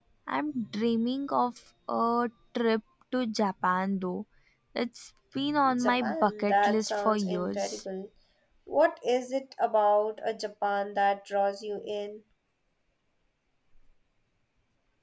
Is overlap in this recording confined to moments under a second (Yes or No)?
No